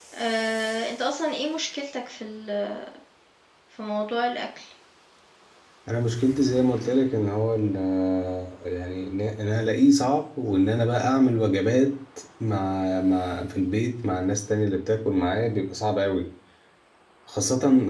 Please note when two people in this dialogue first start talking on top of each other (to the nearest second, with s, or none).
none